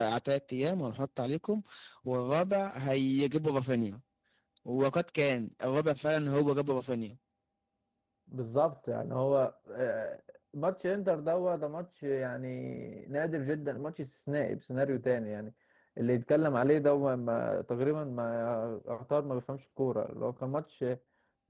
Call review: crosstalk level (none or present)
none